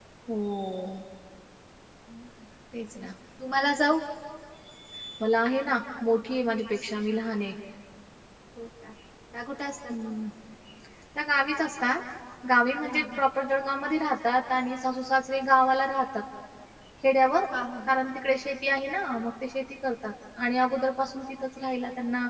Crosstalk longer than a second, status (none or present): none